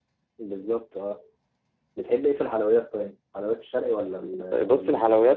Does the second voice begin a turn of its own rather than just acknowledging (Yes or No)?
Yes